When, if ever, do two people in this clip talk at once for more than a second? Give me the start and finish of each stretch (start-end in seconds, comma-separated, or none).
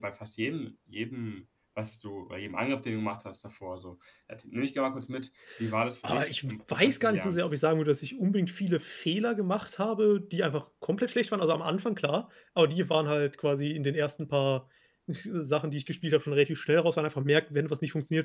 6.0-7.5